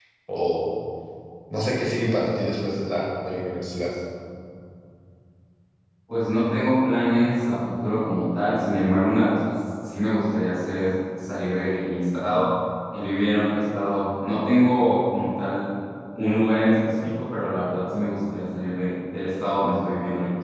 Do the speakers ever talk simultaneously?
No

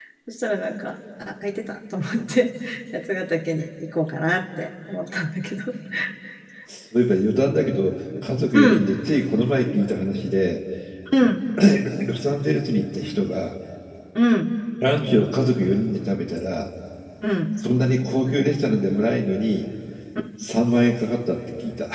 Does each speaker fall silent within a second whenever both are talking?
Yes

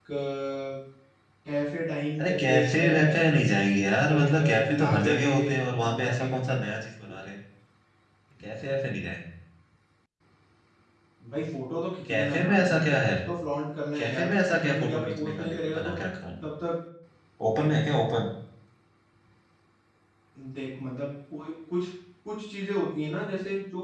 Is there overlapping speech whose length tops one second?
Yes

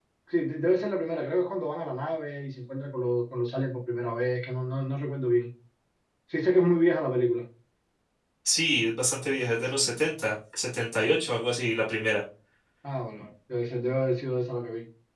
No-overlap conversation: Yes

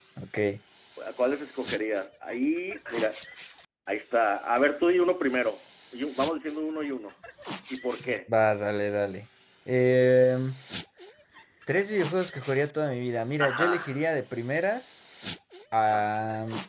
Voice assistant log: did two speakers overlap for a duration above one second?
No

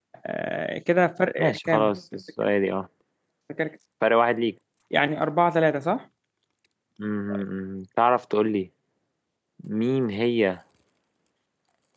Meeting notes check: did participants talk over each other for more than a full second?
No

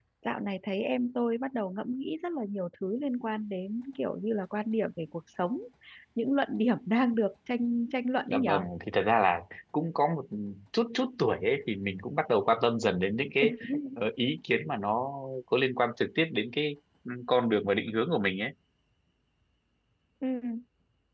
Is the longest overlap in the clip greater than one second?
No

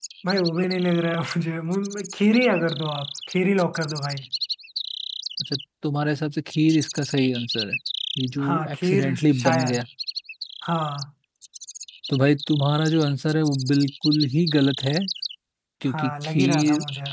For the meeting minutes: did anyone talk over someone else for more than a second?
Yes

